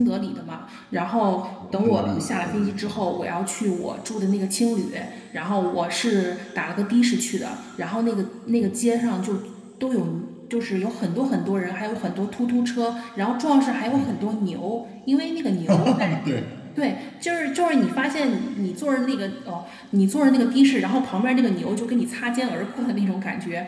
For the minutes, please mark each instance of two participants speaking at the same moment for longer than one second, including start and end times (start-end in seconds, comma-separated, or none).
1.7-3.0